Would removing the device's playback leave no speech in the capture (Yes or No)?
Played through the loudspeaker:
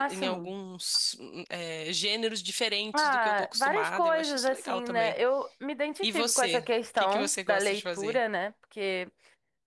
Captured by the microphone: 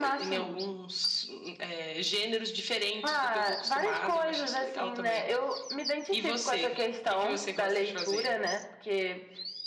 Yes